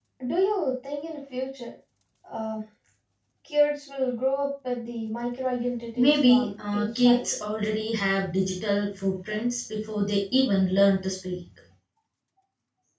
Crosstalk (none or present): present